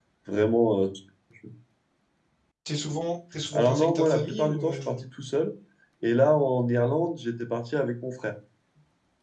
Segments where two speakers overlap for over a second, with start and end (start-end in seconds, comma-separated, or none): 3.5-5.0